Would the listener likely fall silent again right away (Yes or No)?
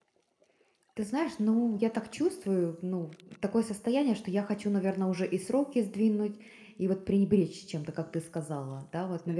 Yes